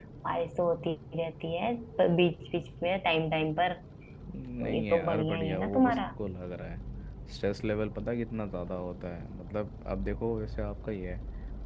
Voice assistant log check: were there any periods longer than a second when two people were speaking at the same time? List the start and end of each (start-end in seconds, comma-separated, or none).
4.6-6.0